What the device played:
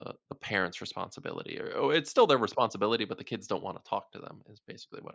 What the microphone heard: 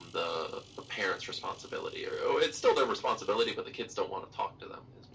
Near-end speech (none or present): none